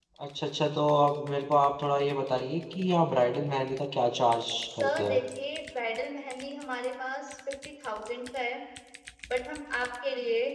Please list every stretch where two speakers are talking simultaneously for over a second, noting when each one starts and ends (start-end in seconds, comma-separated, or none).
none